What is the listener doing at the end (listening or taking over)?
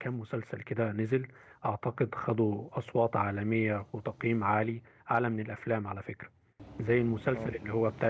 listening